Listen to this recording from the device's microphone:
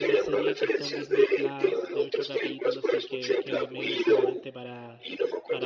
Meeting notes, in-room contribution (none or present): present